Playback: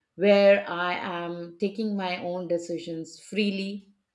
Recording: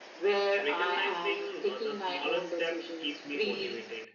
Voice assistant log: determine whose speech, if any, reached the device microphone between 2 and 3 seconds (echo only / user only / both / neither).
both